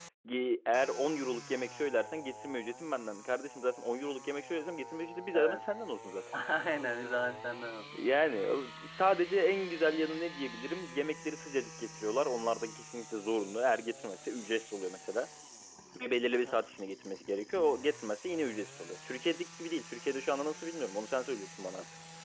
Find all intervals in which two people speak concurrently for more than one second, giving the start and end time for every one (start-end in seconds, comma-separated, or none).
none